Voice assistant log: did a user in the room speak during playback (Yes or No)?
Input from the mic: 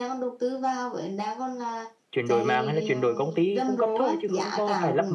Yes